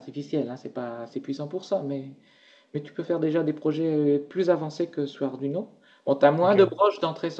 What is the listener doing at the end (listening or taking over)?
listening